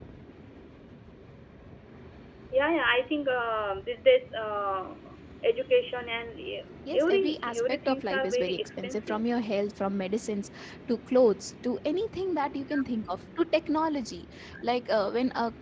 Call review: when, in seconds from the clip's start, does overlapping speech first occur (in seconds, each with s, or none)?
6.9 s